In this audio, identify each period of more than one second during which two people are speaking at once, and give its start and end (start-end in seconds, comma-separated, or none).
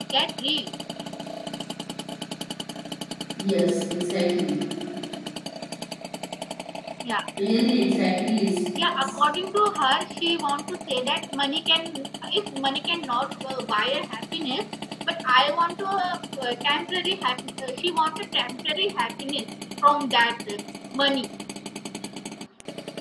none